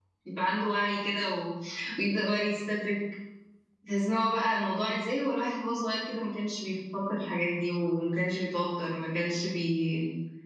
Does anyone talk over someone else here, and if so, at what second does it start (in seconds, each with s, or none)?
none